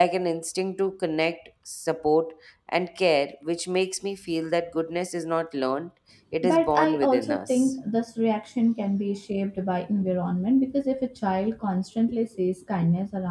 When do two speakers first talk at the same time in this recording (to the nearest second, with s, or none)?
6 s